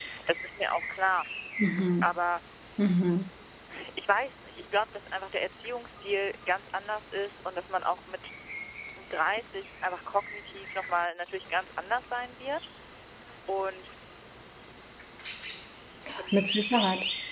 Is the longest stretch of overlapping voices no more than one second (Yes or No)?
Yes